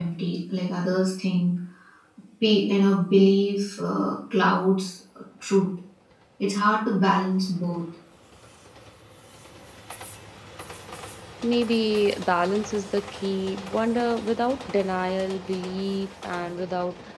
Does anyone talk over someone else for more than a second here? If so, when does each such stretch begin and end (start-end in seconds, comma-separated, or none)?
none